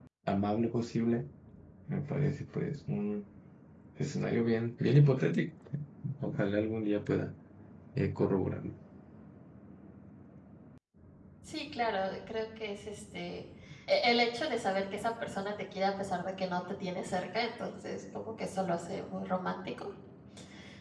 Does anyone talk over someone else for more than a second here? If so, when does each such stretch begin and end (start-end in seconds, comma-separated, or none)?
none